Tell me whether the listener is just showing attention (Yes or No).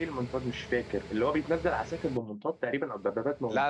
No